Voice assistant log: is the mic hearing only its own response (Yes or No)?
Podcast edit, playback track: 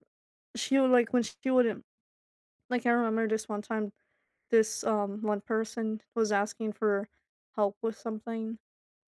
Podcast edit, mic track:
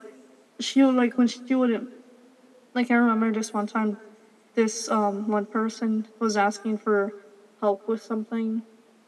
Yes